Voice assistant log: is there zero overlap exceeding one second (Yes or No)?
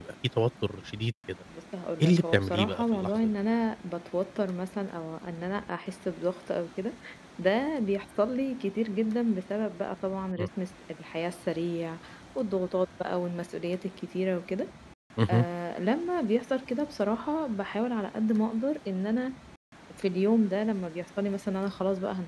No